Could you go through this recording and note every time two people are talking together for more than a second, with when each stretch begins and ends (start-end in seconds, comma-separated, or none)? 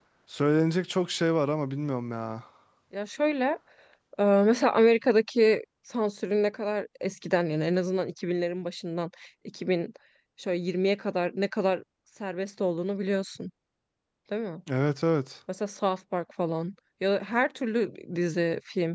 none